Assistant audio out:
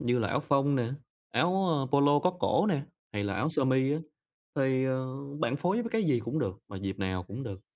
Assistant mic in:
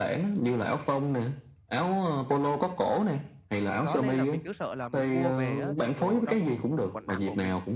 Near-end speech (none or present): present